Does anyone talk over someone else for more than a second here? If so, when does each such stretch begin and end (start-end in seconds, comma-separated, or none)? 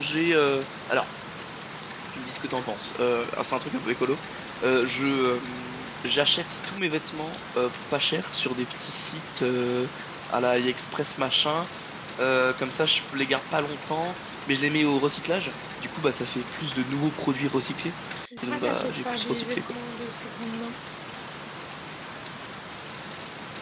18.5-19.7